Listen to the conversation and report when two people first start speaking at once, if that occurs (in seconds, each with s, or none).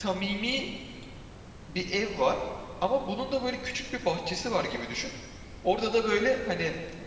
none